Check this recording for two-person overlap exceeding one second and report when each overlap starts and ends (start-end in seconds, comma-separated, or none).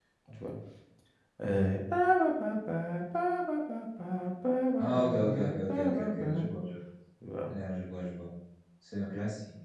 4.8-6.5